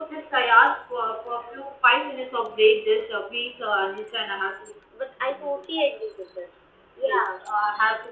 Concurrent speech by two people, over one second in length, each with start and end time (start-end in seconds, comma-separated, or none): none